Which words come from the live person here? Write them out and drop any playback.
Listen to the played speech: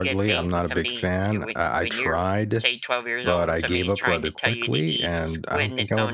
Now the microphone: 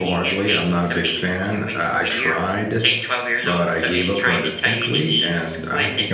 none

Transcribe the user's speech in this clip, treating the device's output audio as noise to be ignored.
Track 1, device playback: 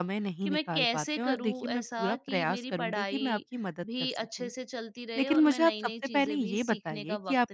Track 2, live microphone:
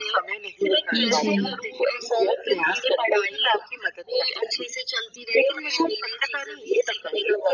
जी,

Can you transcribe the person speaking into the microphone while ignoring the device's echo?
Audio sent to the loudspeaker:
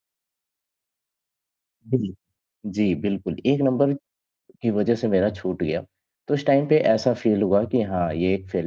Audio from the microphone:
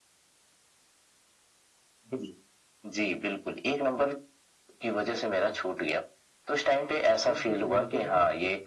सीट कुछ लिमिटेड है

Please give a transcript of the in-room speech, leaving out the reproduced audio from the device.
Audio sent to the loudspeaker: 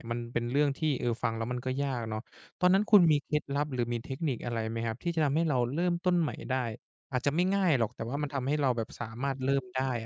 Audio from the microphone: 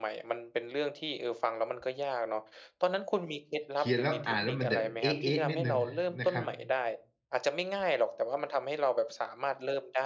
เขียนแล้วอ่านแล้วมันแบบเอ๊ะๆนิดหนึ่งนะครับ

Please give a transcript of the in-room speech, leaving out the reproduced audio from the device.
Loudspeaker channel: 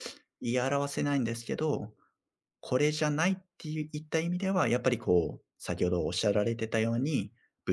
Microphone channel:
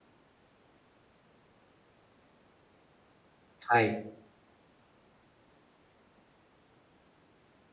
はい、

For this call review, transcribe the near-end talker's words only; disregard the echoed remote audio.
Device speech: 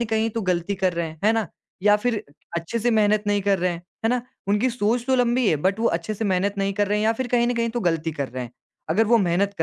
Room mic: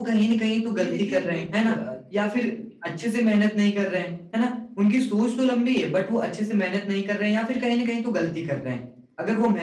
जी देखिए, बिल्कुल अ,

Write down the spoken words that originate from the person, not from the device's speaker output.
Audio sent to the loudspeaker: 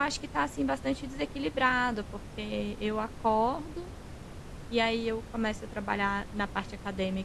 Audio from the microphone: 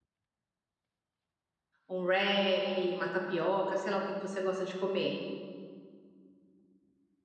um wrap, uma tapioca, sei lá o que que você gosta de comer.

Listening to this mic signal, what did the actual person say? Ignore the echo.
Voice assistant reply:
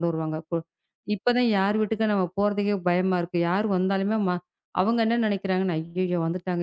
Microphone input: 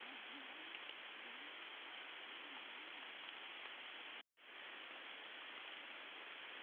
none

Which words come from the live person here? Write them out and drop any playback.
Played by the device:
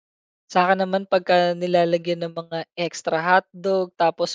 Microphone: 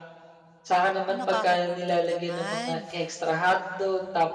Naku, nakakagutom naman.

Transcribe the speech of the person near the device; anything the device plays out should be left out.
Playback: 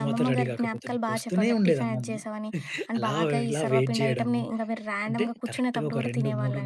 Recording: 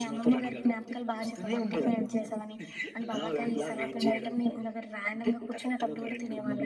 none

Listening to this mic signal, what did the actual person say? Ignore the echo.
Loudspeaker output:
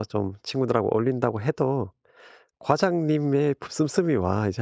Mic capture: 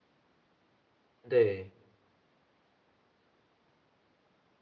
네.

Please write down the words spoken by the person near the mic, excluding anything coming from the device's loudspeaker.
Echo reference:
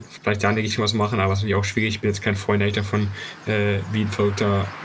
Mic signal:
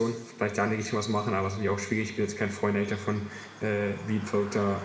none

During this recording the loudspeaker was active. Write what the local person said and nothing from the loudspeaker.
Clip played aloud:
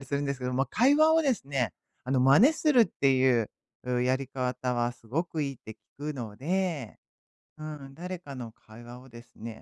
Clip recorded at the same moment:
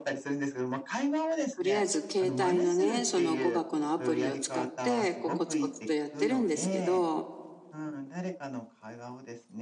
とりあえず携帯のね、その語学のアプリを使って、こうコツコツとやってるんですけど、

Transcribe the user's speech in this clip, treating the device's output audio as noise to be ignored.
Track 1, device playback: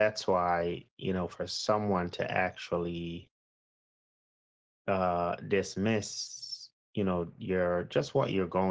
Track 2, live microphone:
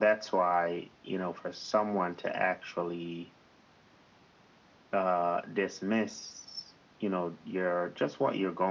none

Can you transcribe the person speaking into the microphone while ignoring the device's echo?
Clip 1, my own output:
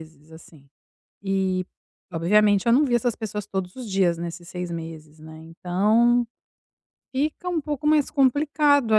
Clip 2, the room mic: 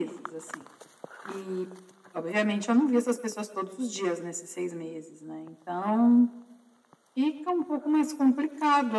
none

